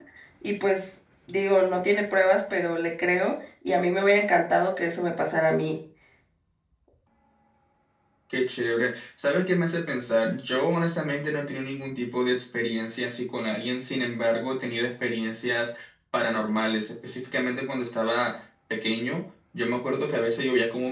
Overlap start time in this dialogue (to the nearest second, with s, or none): none